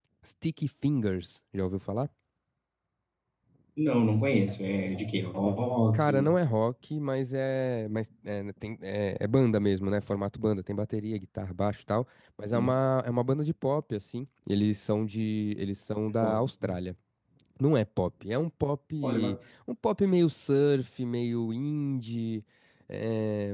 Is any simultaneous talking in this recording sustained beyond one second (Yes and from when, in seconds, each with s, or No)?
No